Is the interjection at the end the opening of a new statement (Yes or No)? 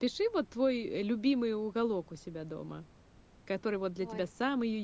No